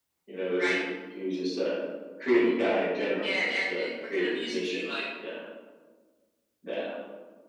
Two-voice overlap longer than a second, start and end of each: 3.2-4.9

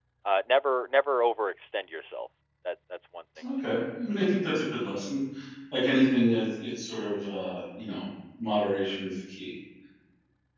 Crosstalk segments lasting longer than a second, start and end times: none

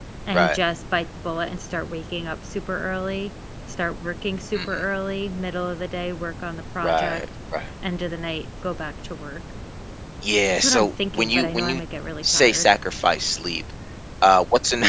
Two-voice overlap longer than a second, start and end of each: 10.5-11.8

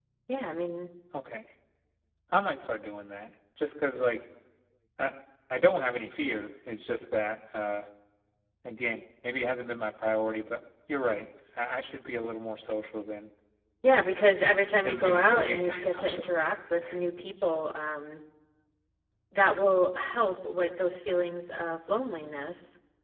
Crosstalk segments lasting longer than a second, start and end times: 14.8-16.3

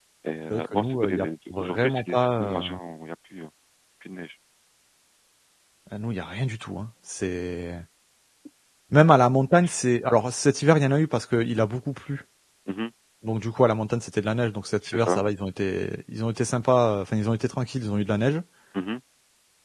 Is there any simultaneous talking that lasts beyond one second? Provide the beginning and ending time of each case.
0.5-2.6

